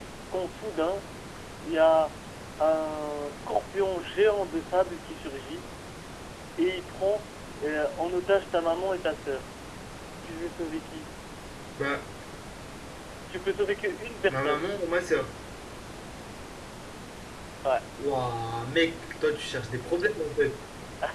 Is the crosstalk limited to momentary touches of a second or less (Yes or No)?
Yes